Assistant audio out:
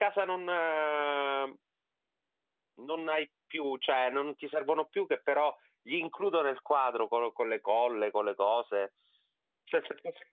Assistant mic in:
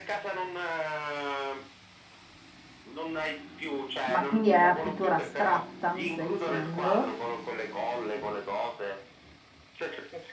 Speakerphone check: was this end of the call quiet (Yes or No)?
No